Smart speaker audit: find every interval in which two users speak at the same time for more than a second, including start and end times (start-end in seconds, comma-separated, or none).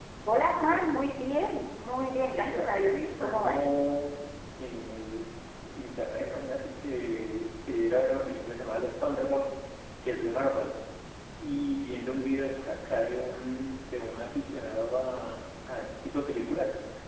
2.3-3.6